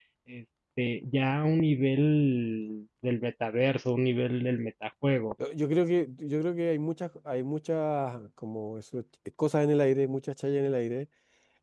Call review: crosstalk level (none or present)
none